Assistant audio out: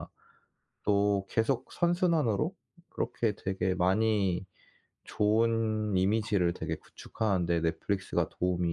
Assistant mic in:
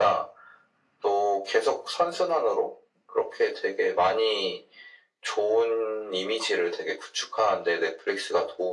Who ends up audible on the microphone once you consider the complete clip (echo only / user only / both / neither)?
echo only